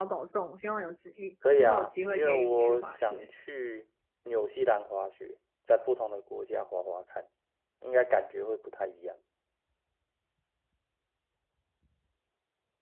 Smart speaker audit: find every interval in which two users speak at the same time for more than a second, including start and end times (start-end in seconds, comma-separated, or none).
1.6-3.2